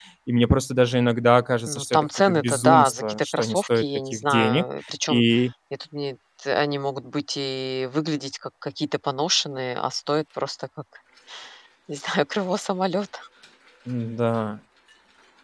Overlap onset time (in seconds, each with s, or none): 1.7 s